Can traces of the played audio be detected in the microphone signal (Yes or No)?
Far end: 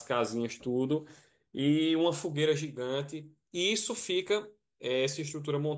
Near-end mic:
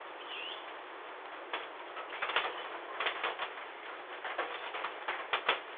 No